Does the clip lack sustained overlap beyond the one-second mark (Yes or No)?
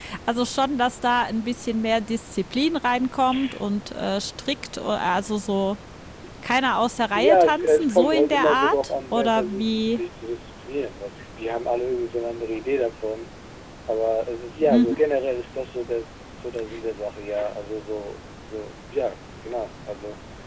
No